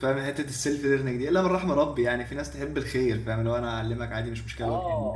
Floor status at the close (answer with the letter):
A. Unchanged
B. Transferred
B